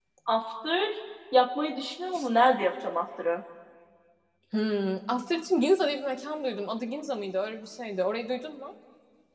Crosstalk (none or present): none